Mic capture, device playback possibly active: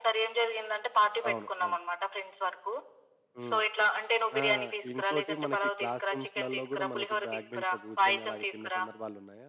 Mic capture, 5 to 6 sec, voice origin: both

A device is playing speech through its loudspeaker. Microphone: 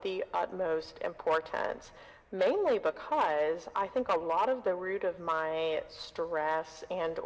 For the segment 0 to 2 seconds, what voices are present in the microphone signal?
echo only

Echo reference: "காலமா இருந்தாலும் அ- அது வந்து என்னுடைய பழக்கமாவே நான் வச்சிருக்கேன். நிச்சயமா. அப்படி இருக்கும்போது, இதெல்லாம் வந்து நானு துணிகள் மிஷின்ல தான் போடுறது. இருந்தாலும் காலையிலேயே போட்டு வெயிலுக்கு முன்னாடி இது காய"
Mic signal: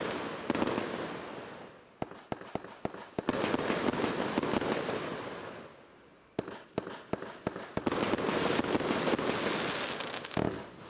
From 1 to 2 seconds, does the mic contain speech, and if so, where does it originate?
neither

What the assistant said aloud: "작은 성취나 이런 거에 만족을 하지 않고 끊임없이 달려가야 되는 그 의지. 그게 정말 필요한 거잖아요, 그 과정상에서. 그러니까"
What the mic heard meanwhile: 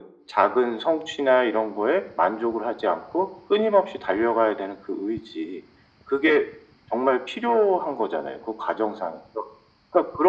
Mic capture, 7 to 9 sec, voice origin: echo only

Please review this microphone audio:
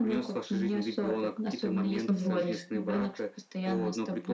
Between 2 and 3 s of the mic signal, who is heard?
both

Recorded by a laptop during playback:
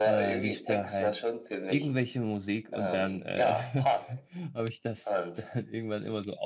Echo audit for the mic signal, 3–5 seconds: both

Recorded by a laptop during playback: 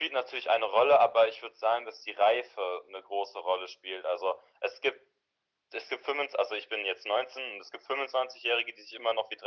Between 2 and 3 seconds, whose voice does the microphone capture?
echo only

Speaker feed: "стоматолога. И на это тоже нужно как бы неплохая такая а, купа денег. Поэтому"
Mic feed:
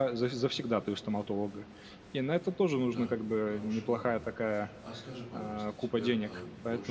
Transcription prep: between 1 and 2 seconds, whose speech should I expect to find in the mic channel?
echo only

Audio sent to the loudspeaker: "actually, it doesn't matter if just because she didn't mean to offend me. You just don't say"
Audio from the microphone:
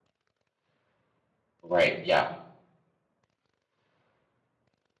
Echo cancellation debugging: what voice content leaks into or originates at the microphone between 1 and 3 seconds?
user only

